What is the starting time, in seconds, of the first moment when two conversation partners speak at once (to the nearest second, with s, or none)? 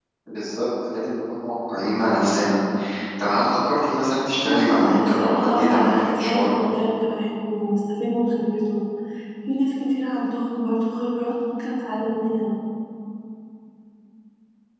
4 s